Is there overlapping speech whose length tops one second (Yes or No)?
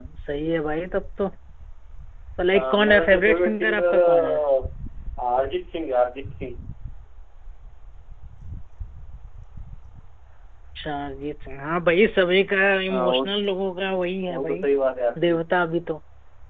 Yes